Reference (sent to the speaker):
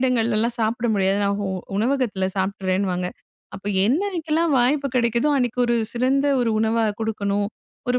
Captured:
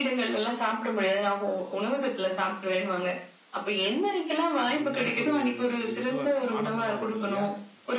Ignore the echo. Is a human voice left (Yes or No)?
Yes